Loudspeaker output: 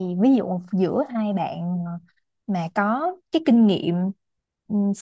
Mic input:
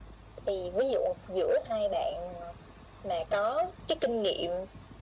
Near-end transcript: none

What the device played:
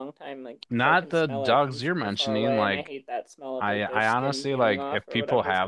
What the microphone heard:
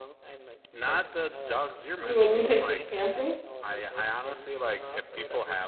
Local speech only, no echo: You wouldn't take it camping?

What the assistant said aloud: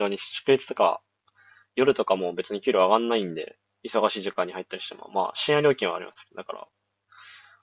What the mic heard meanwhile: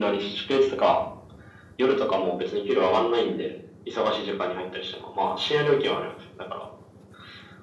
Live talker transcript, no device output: none

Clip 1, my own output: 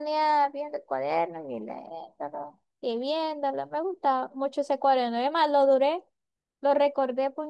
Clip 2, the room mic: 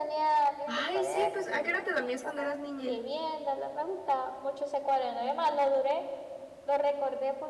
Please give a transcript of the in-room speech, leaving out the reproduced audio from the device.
Ay, sí, pues ¿a qué hora te dormías cuando eras niña?

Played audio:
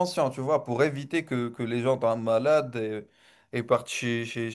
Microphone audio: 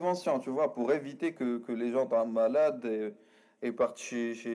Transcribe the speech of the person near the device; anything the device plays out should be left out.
none

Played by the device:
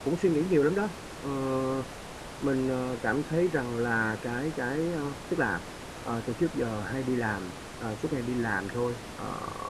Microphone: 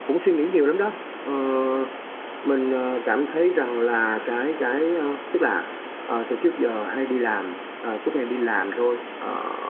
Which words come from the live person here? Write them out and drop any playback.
none

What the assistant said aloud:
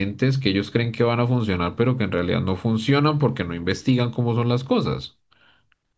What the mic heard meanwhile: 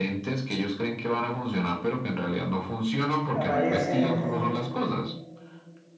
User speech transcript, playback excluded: aparecen

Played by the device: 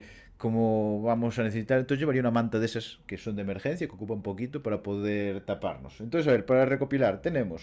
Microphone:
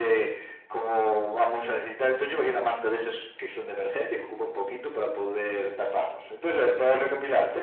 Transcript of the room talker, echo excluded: none

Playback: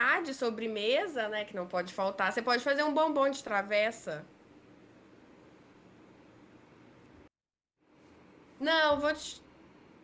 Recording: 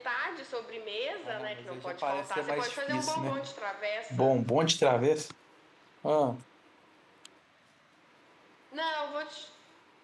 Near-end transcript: Ah, não, mas aí já parece ser mais difícil, né? Bom, bom de travessa. Ah,

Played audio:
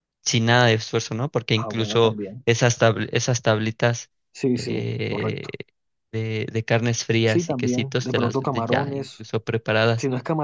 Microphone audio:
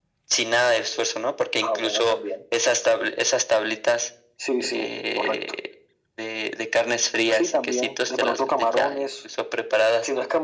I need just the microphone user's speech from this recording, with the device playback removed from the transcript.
none

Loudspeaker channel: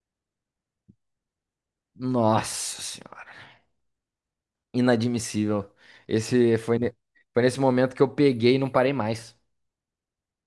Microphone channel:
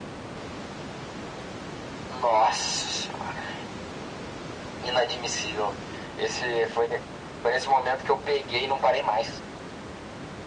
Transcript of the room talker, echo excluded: none

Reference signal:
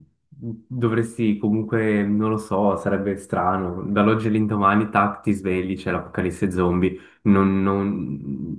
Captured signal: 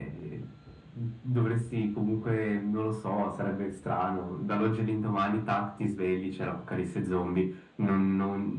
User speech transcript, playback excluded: none

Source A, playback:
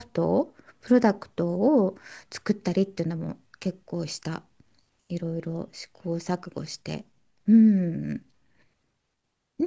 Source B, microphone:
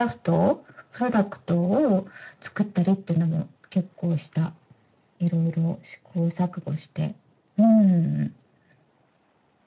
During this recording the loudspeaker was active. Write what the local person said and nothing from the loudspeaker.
none

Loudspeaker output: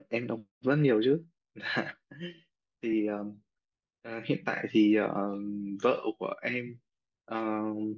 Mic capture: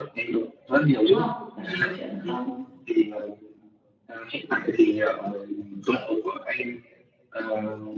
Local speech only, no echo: đúng không làm gì có chuyện là không

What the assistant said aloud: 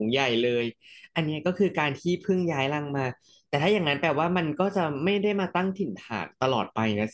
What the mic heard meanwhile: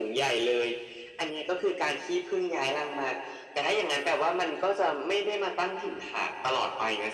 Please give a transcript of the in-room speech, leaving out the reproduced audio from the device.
none

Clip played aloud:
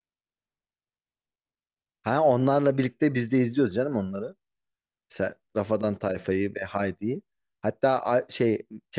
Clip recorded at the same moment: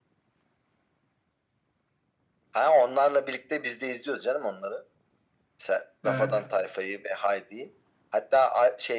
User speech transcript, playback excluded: Evet.

